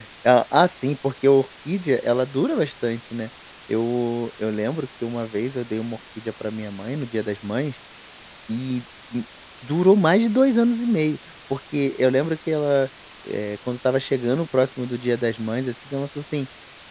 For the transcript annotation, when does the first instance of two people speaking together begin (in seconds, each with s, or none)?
none